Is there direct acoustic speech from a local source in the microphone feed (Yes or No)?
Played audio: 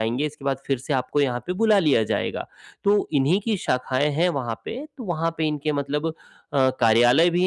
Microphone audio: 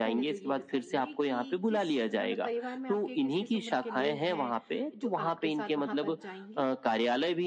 Yes